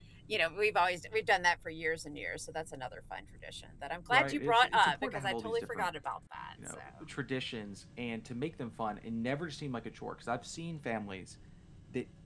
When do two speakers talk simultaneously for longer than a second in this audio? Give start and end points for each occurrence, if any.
4.1-5.9

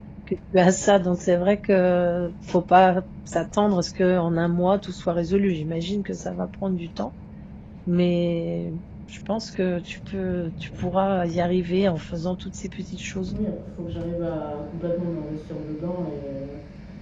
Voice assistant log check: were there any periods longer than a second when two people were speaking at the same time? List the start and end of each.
none

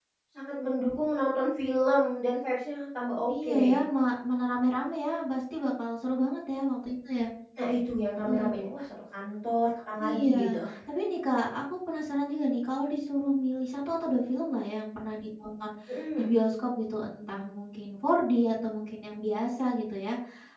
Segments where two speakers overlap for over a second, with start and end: none

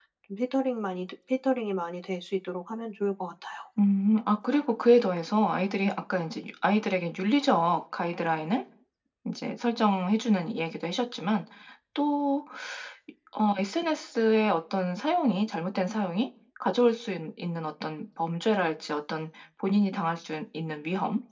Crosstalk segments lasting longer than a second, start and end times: none

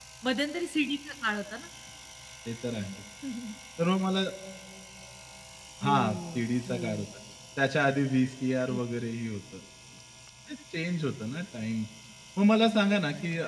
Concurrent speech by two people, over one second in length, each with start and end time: 5.8-7.1

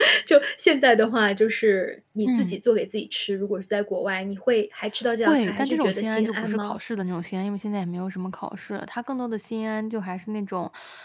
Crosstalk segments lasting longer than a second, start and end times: 5.2-6.8

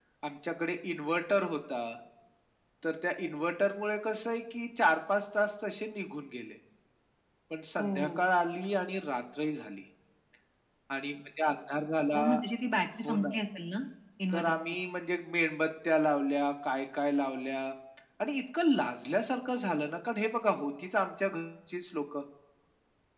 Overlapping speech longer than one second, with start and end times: none

